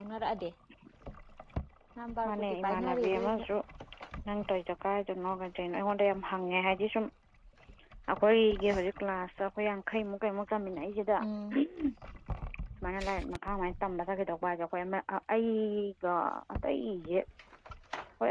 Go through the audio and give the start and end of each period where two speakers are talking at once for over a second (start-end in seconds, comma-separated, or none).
2.2-3.5